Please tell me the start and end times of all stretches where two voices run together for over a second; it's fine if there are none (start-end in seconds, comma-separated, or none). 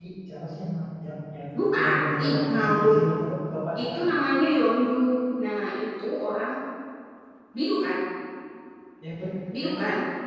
1.8-3.0